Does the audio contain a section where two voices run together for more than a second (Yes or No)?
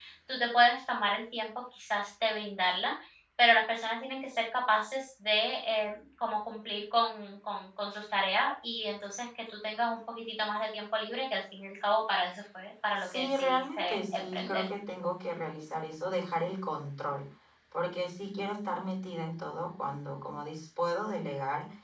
Yes